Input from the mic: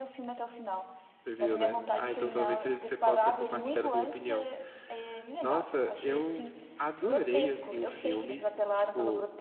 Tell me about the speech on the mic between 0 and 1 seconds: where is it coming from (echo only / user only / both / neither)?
echo only